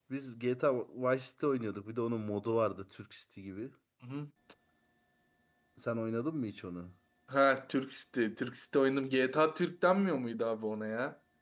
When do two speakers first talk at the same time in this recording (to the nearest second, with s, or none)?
none